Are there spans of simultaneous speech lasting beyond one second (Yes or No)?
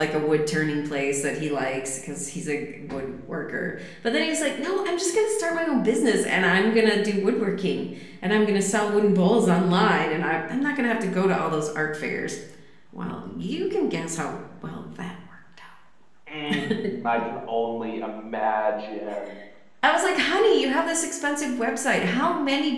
No